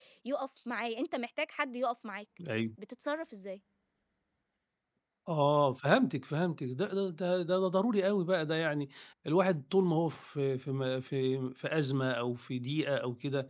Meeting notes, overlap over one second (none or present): none